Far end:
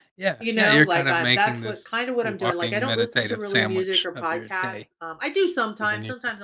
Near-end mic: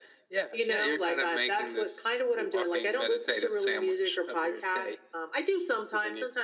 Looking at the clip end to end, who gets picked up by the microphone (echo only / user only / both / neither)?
echo only